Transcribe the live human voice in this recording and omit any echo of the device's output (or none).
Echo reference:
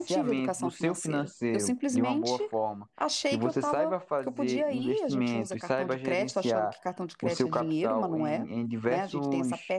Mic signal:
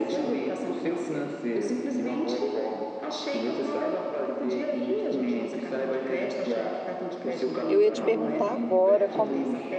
Eu ia te perguntar agora como